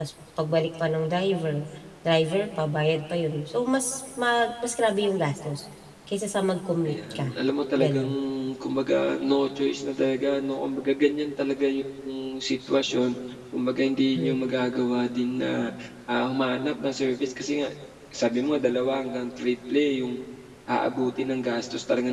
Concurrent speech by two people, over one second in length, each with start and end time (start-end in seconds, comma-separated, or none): none